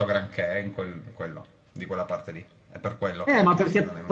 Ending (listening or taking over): taking over